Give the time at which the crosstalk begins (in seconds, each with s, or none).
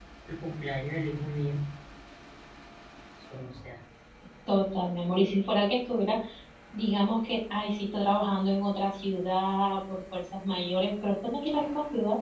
none